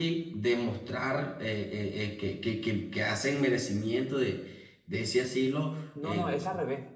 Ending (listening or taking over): taking over